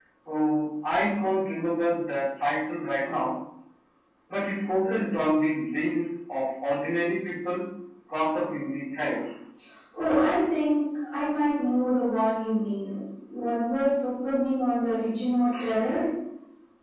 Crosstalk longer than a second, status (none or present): none